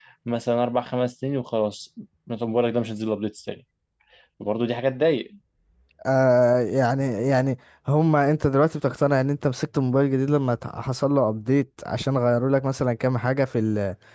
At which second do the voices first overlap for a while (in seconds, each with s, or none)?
none